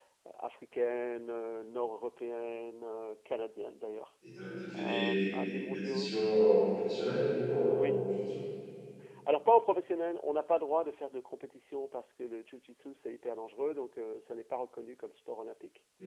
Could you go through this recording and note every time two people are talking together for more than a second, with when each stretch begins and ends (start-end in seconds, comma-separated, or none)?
4.8-6.2